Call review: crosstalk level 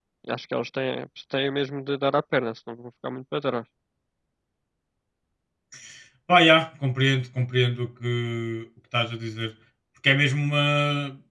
none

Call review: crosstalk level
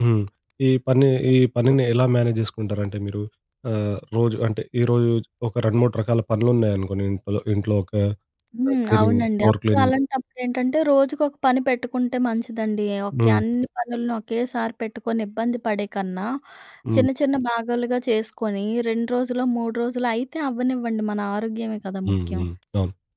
present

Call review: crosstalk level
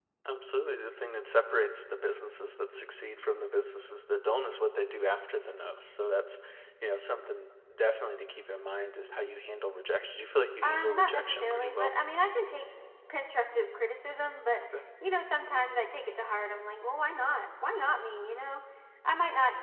present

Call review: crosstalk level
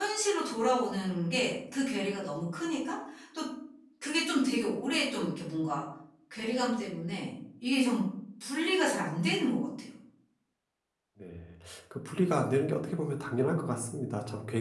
none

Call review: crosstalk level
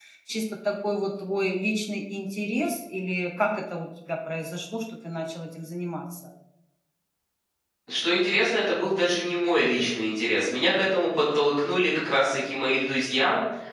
none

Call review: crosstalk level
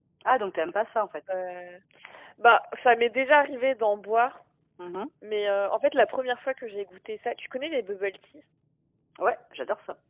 none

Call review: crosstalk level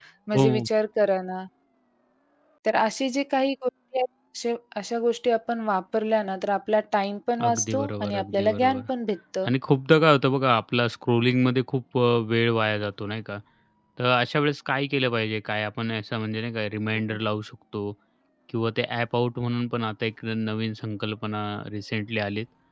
present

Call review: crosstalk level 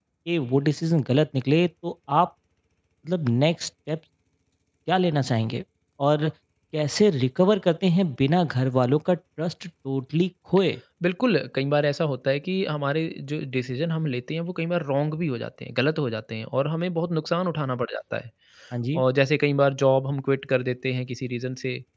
none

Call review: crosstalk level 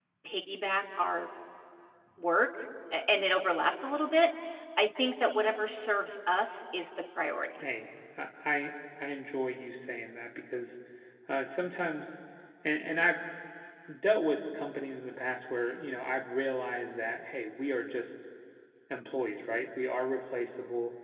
none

